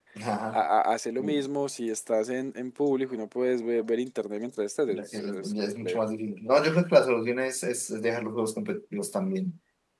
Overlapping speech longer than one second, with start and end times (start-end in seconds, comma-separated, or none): 4.9-6.1